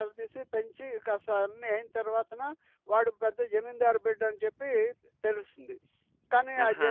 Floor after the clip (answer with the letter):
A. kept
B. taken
A